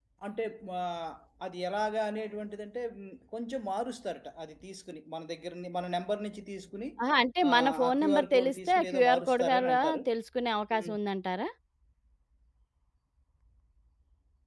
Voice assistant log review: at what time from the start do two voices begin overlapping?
7.5 s

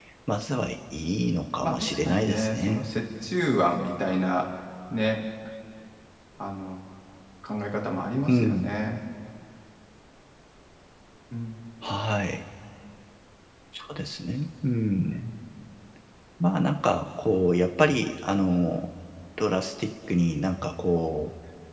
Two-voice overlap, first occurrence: 1.6 s

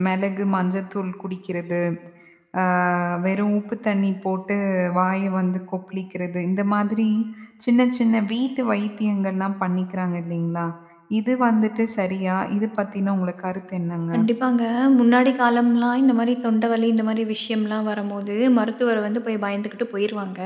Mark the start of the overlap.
none

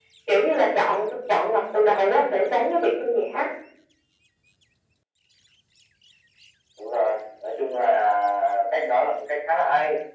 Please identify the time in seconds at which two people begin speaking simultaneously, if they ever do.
none

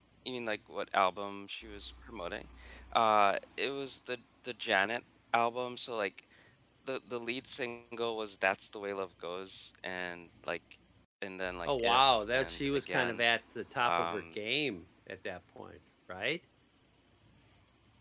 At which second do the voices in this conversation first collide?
11.7 s

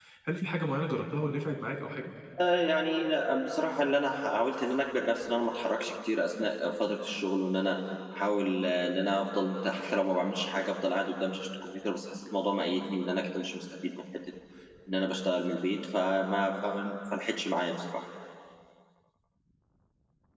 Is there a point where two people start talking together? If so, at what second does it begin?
none

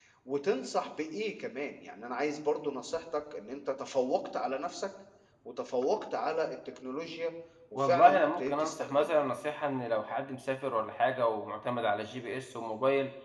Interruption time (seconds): 7.8 s

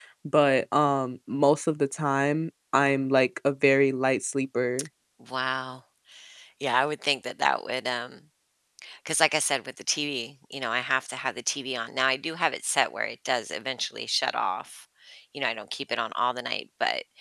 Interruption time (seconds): none

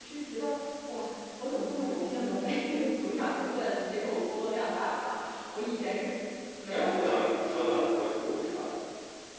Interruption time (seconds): 6.7 s

